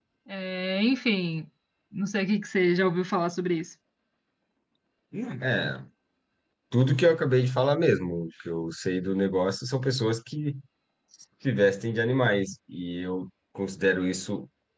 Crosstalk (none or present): none